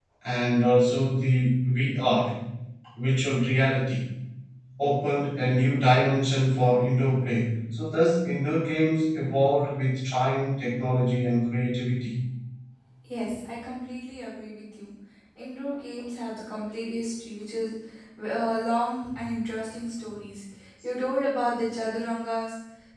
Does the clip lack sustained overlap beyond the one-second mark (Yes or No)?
Yes